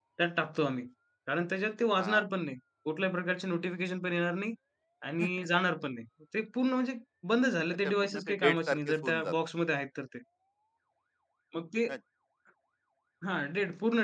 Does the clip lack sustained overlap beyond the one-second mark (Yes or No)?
No